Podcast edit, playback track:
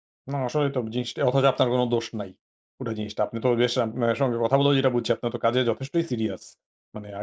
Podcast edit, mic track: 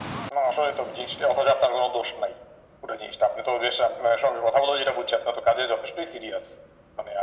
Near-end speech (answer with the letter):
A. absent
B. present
A